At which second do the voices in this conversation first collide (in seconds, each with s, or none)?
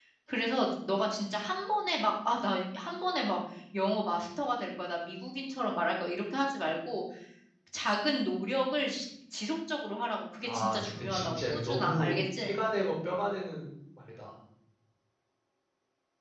10.5 s